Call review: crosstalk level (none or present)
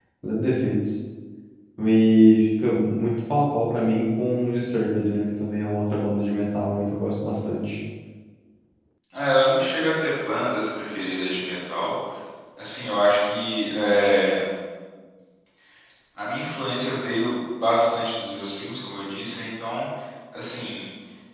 none